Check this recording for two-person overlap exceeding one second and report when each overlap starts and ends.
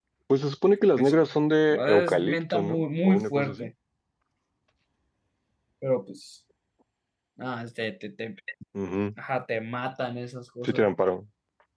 1.7-3.7

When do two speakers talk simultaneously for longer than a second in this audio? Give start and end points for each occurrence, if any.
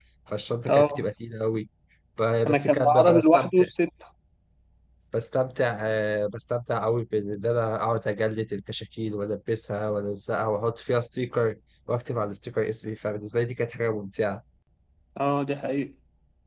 2.5-3.7

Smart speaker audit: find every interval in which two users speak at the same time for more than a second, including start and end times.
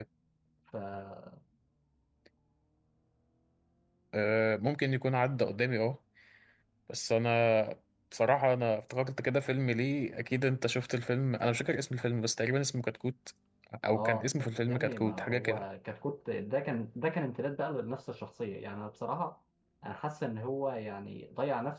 13.9-15.6

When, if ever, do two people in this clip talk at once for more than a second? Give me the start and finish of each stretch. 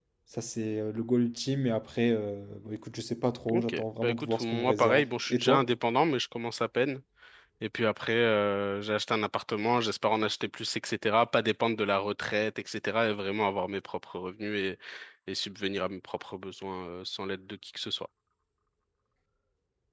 3.5-5.7

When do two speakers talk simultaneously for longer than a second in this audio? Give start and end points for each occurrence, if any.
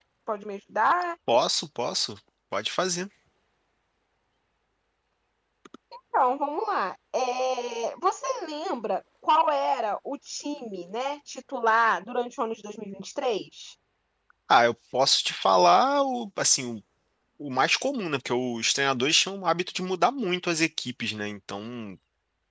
none

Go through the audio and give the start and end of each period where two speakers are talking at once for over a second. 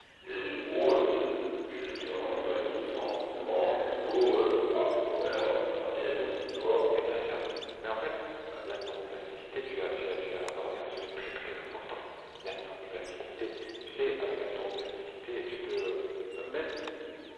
none

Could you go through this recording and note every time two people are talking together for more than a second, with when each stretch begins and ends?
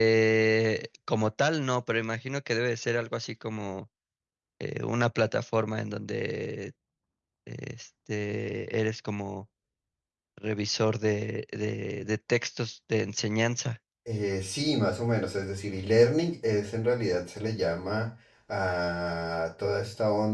none

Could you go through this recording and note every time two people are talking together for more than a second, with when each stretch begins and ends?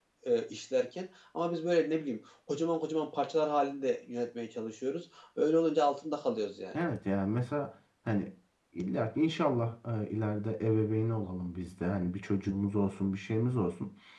none

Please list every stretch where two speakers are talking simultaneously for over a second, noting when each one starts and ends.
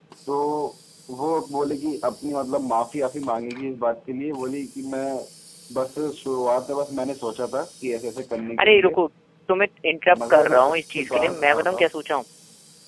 10.3-11.9

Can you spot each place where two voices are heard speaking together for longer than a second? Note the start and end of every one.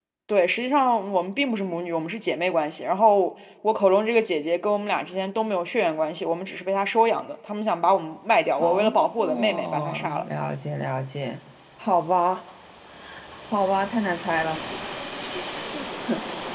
8.6-10.2

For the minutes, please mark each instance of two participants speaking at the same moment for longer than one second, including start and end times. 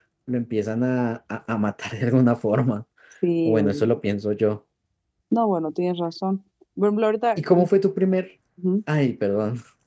none

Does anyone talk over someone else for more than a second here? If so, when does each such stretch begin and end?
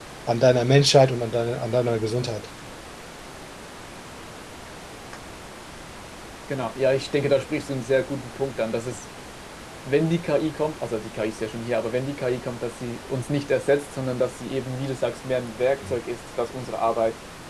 none

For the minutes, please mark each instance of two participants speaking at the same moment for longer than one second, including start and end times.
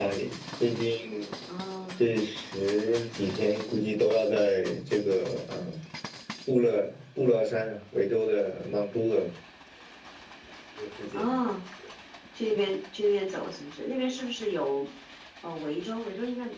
none

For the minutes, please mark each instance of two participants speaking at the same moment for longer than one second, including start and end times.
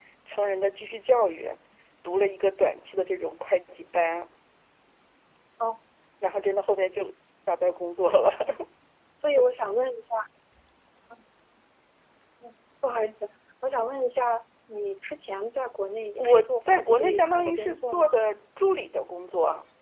16.2-18.1

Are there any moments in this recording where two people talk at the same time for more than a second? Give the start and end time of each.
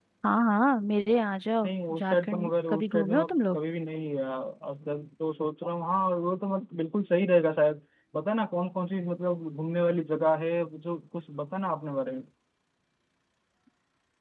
1.6-3.6

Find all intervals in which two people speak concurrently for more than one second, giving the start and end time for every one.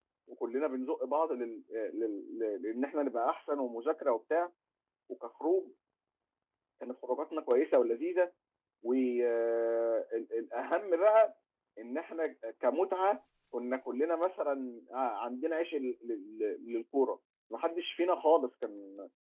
none

